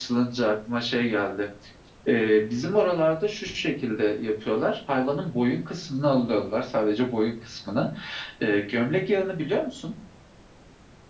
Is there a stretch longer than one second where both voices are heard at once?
No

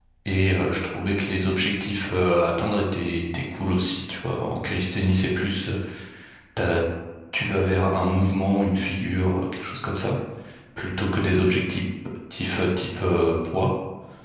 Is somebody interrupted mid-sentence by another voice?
No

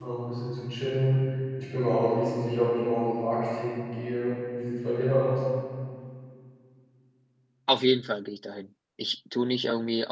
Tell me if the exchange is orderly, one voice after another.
Yes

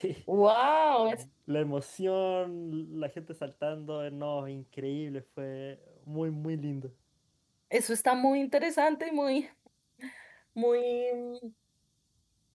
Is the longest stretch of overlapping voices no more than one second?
Yes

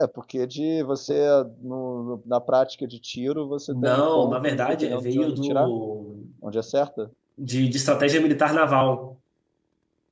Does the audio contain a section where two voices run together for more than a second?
Yes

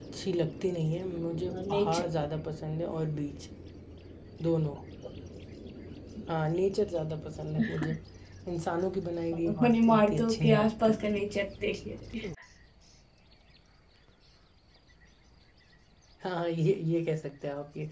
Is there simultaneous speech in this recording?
Yes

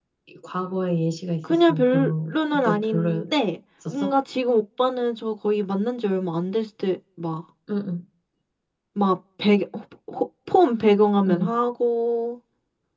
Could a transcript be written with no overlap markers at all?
No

